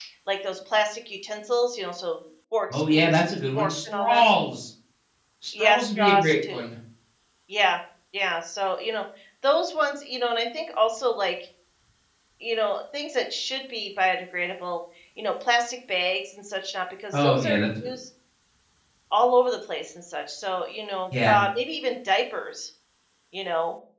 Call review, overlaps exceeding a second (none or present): present